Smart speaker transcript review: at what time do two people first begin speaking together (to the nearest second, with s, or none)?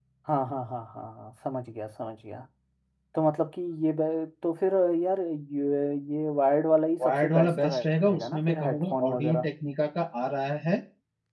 7 s